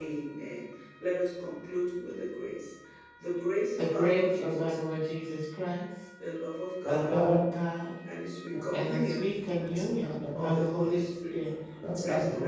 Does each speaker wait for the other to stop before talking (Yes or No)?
No